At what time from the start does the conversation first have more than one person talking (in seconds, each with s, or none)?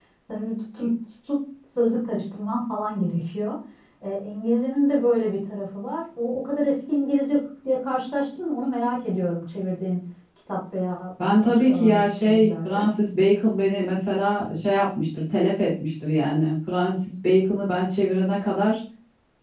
11.2 s